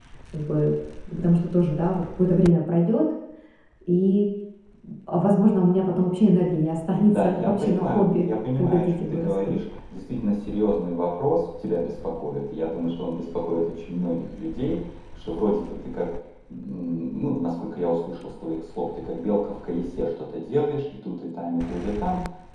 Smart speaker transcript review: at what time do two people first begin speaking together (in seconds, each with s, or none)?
7.1 s